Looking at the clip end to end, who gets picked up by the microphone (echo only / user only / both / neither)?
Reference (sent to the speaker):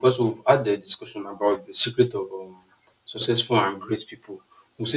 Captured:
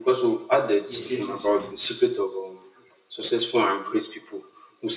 both